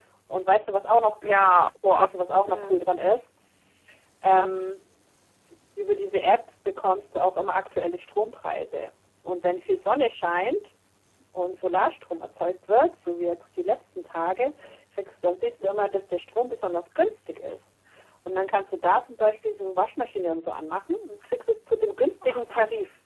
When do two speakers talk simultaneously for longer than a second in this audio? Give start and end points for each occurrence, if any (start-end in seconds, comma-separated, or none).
none